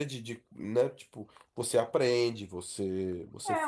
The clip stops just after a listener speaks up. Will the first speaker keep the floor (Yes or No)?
No